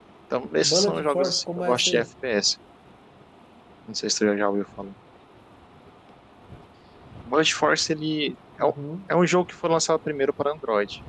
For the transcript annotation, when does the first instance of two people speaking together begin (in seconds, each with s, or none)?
0.6 s